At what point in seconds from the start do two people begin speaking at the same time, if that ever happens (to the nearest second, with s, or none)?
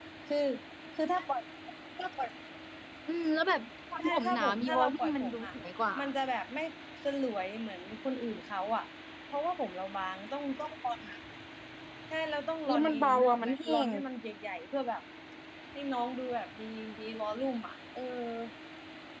4 s